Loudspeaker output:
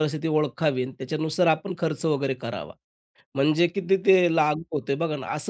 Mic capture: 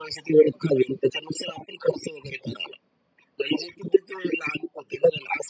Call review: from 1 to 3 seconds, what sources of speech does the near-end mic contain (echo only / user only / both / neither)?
echo only